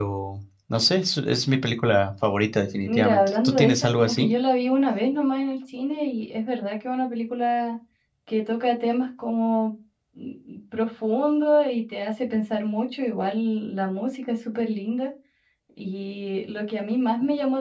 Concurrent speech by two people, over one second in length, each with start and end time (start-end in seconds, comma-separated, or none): 2.8-4.3